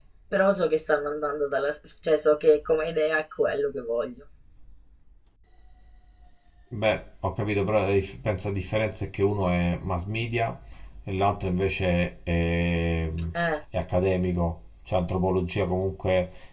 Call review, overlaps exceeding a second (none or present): none